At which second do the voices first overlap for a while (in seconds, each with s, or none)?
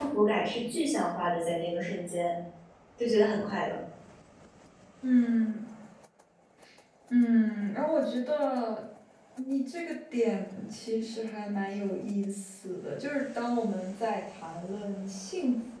none